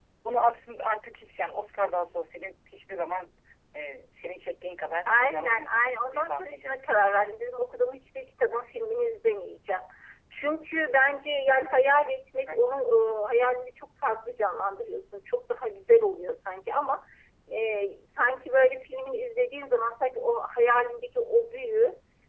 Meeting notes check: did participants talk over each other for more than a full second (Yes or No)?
Yes